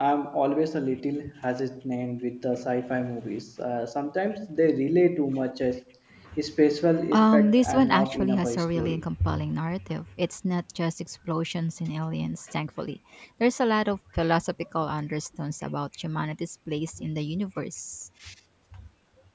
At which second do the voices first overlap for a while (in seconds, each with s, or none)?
7.1 s